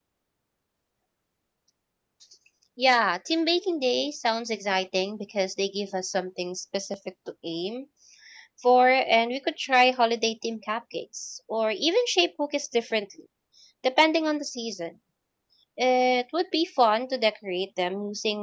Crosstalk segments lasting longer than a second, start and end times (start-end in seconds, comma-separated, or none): none